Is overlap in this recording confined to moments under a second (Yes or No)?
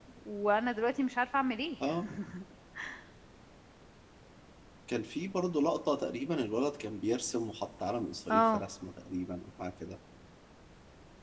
Yes